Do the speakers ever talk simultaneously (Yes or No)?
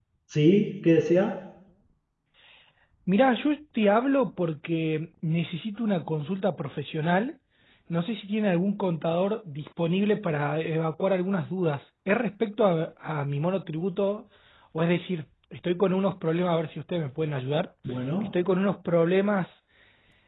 No